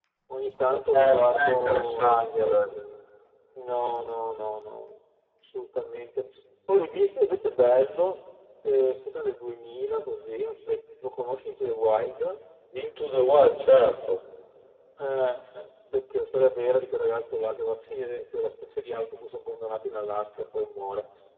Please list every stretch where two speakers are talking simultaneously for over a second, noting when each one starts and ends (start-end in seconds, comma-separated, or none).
0.7-2.6